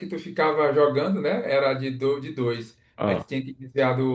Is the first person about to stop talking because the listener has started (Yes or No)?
No